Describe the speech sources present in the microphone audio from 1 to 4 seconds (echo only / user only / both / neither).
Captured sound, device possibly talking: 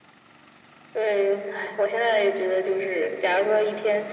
echo only